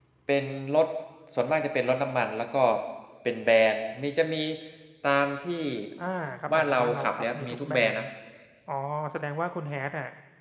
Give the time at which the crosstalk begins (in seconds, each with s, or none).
6.5 s